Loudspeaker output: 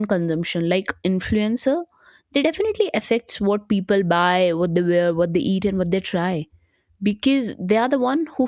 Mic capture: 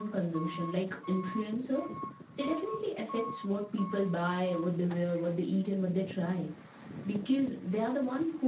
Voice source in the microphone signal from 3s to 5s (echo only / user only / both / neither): echo only